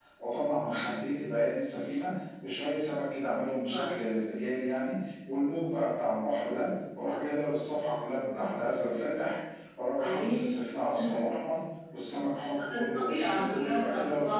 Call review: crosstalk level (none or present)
present